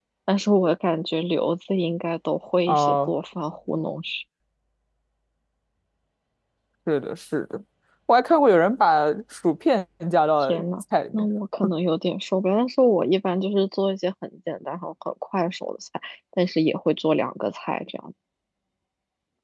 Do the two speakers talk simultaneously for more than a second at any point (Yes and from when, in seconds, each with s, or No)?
No